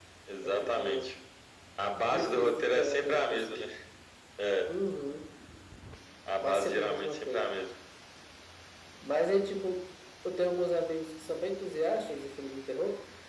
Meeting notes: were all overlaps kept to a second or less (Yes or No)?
No